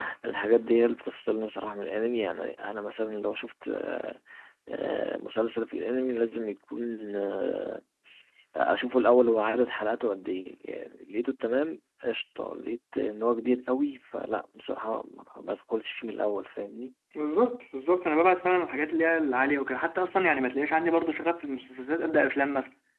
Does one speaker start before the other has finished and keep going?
No

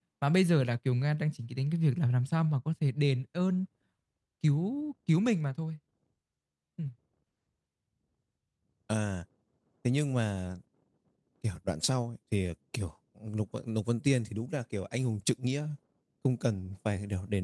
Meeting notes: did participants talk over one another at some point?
No

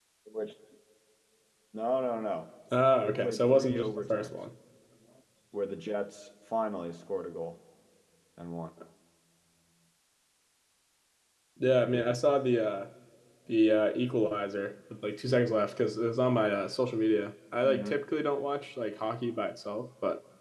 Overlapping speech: Yes, from 3.0 s

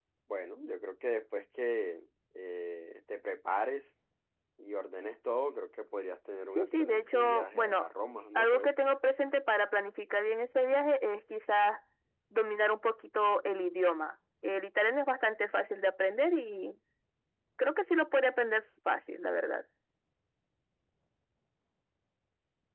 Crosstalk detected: Yes, from 6.5 s

